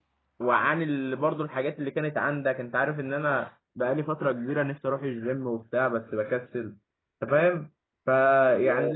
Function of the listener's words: listening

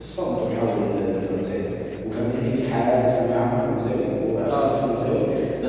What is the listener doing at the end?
listening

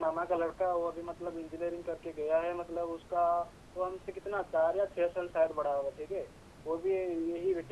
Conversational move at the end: listening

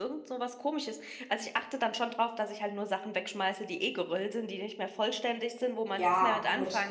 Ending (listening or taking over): taking over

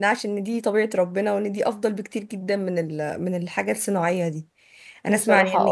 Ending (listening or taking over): listening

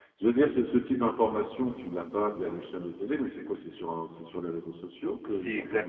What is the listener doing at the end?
taking over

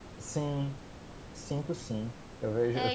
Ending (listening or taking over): listening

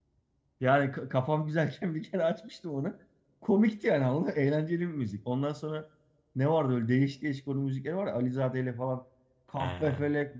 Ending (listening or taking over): listening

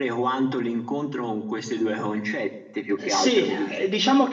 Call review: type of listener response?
taking over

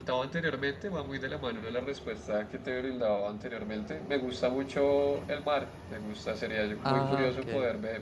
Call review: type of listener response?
listening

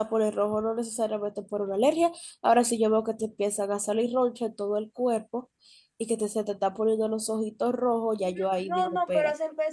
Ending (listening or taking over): taking over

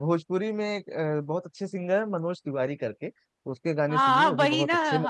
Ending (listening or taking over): taking over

